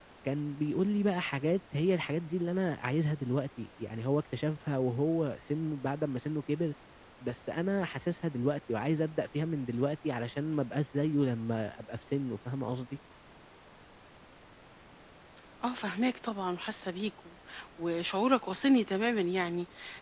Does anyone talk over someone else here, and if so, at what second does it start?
none

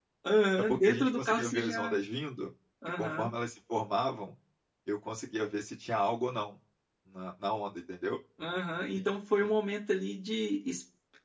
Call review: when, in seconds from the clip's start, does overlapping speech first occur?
1 s

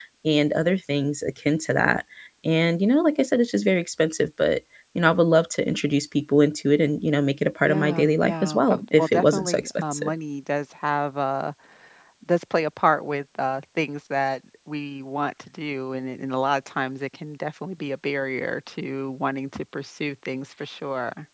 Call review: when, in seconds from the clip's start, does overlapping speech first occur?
8 s

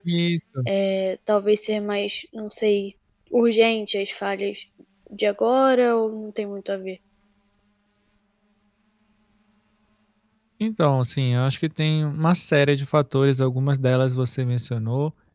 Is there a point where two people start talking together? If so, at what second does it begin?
none

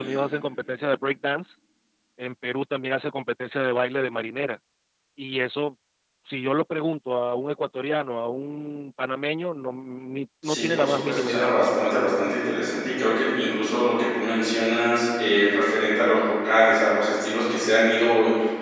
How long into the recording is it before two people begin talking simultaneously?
10 s

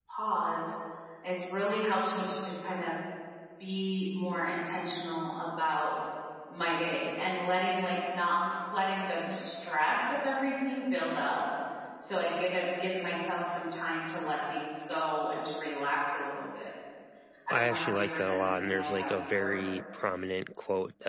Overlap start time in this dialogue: 18 s

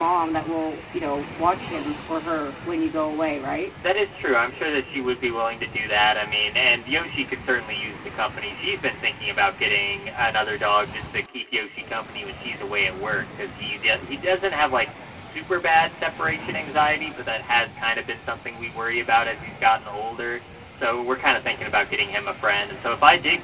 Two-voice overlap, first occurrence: none

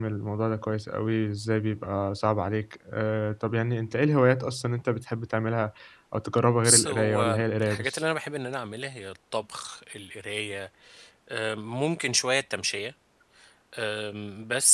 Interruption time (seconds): 7 s

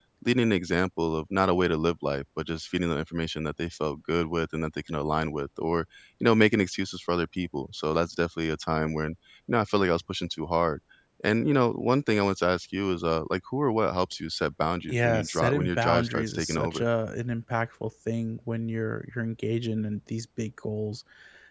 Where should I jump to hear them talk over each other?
15 s

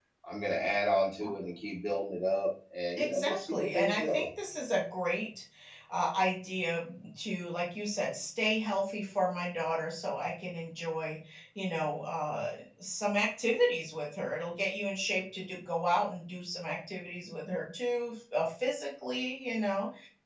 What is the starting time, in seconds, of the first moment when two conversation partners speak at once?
3 s

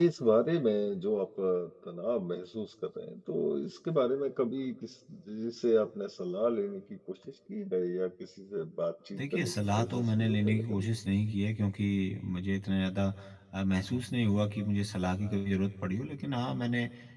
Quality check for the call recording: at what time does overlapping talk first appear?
9 s

